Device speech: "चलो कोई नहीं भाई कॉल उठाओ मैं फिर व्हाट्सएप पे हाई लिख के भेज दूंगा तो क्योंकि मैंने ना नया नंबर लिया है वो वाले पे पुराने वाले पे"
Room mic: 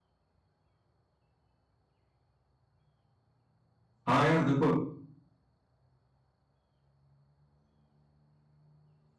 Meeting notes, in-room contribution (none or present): present